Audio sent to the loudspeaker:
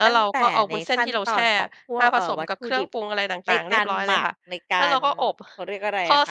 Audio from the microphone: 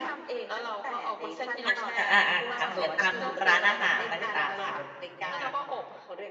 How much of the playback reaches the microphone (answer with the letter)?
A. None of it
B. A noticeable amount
B